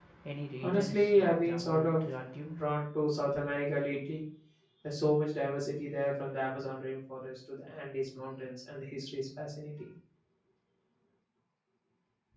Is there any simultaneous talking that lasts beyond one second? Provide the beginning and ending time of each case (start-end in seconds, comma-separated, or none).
0.6-2.1